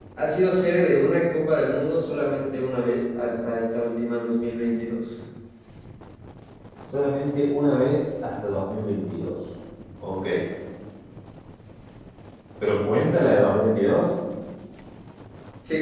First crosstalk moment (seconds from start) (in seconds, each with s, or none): none